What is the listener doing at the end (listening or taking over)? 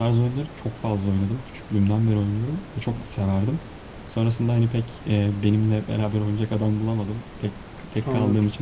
listening